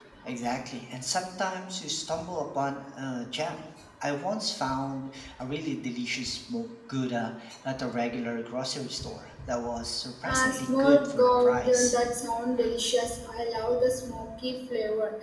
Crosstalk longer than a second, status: present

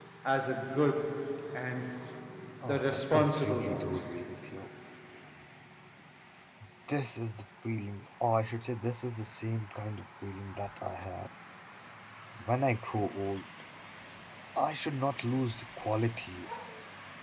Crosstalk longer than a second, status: present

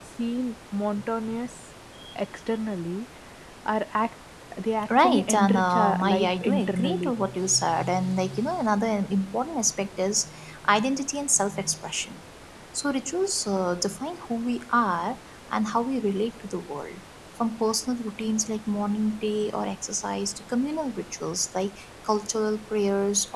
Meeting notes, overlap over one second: present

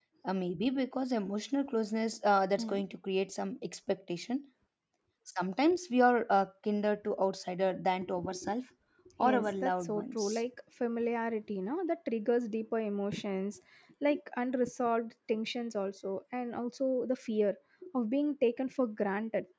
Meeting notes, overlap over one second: present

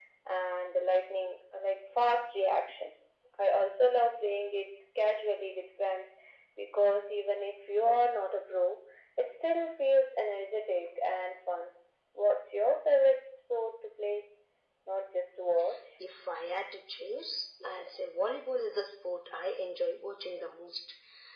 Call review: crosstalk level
none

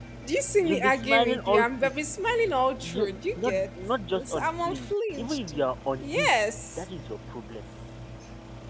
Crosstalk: present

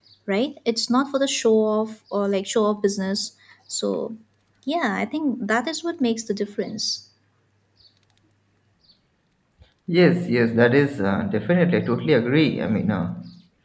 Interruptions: none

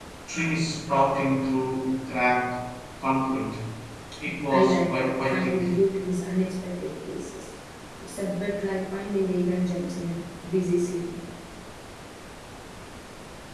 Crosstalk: present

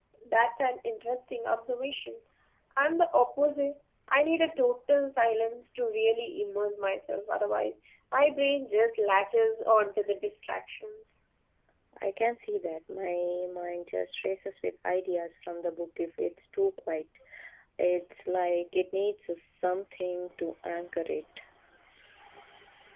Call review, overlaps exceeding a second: none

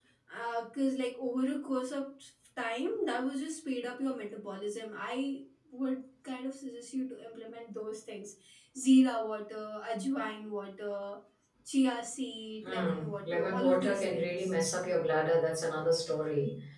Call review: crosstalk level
present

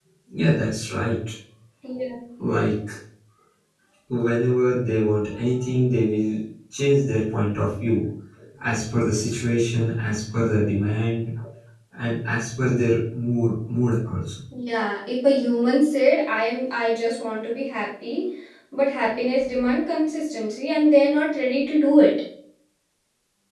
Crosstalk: none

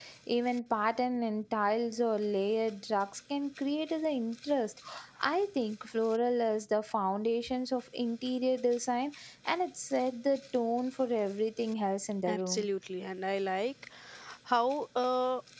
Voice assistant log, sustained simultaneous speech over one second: none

